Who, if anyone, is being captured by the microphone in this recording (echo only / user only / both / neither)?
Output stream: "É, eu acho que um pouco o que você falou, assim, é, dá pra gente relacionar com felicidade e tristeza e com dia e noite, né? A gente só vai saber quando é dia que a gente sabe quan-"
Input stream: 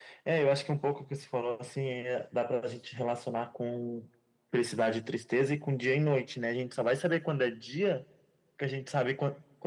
echo only